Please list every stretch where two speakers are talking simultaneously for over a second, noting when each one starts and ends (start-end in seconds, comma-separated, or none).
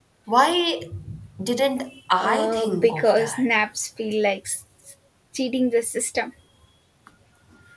2.2-3.5